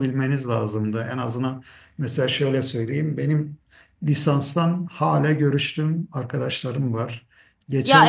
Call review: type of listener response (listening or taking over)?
taking over